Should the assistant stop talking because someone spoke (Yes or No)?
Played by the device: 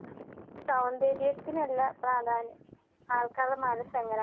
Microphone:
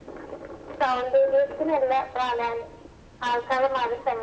No